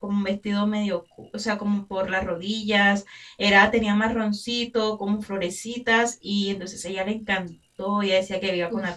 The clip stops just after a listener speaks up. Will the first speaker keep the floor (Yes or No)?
Yes